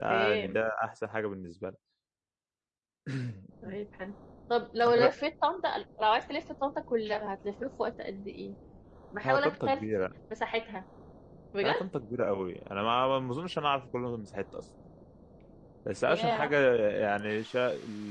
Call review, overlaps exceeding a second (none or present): none